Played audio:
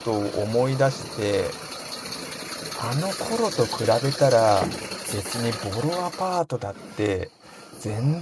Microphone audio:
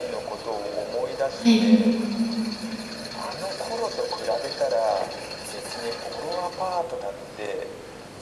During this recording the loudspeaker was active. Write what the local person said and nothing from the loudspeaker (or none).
はい。